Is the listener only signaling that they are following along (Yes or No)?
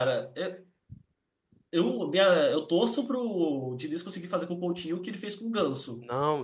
No